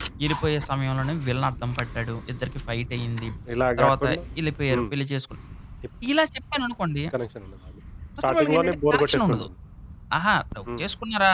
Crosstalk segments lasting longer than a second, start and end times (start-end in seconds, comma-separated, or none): 8.2-9.5